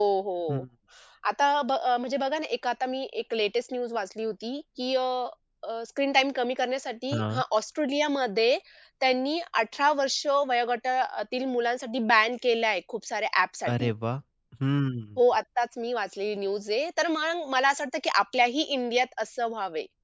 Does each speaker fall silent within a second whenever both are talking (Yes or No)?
Yes